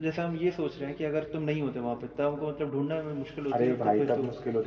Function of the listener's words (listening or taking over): taking over